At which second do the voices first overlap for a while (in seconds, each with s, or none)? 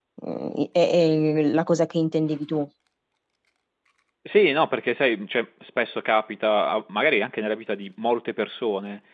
none